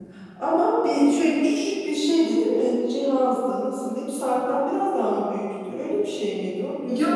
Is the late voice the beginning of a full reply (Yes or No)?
Yes